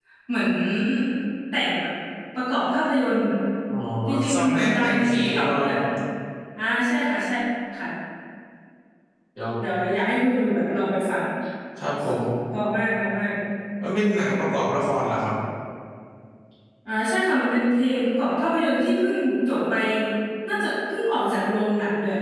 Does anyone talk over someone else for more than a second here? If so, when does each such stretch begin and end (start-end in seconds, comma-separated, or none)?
4.3-5.7